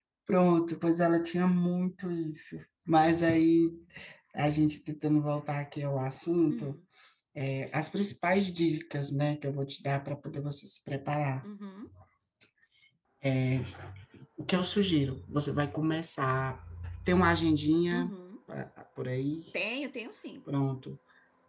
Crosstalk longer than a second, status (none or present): none